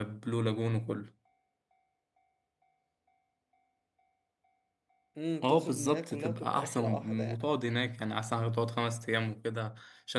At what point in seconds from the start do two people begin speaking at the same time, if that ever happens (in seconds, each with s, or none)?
5.4 s